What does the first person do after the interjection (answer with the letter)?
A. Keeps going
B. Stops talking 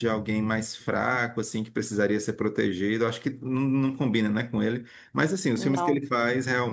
A